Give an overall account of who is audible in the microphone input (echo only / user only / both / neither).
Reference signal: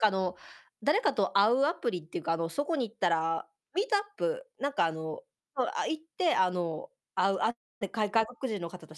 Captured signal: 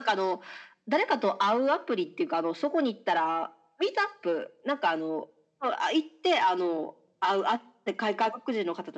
echo only